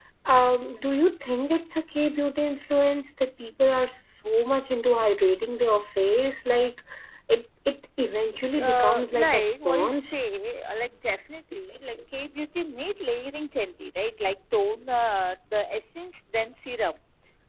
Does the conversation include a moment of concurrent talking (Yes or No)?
Yes